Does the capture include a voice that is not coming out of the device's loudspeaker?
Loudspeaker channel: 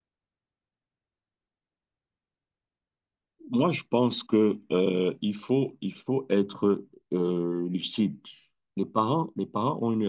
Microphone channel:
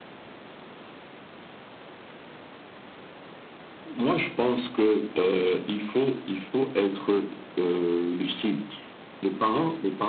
No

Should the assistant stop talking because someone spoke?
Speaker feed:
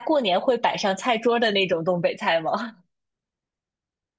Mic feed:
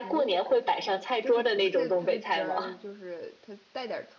Yes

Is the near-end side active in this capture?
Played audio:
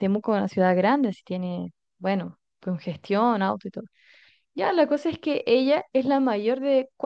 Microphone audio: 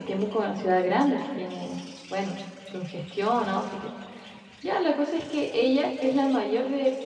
No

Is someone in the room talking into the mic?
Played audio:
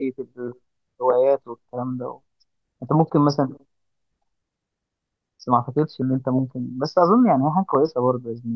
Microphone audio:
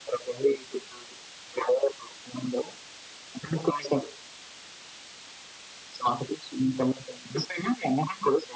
No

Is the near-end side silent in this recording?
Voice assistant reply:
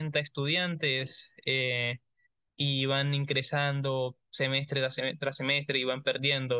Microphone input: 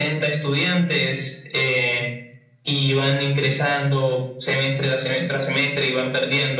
Yes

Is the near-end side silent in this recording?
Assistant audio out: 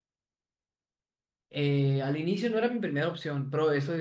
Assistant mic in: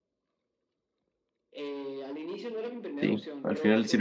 No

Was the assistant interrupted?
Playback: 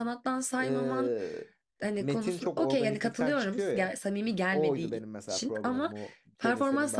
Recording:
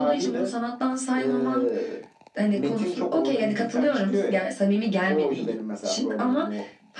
No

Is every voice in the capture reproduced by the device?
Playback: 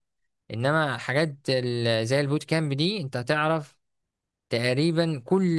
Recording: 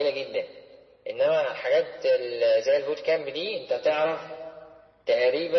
Yes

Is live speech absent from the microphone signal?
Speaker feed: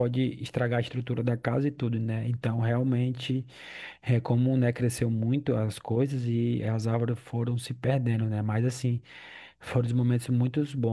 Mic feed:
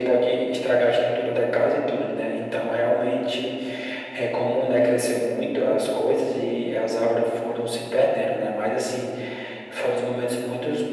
Yes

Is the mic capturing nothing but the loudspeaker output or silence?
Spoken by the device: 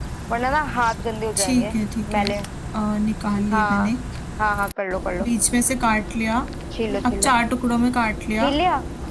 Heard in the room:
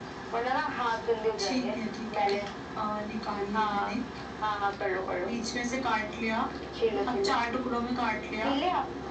Yes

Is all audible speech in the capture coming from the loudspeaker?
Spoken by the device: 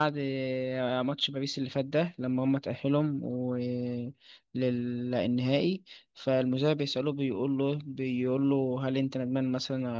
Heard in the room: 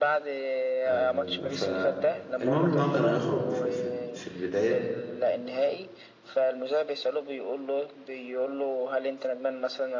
No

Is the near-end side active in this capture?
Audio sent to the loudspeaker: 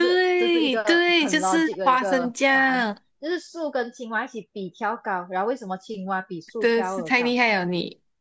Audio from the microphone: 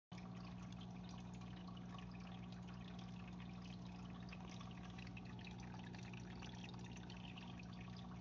No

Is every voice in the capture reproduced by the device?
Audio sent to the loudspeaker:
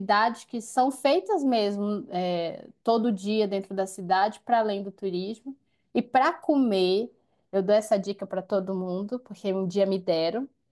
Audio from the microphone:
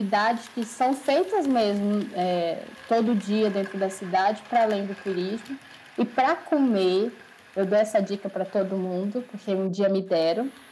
Yes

